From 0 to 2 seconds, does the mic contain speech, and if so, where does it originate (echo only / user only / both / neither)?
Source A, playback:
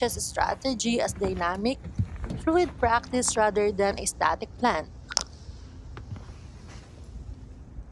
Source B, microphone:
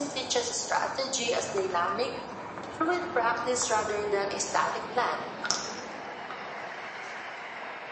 echo only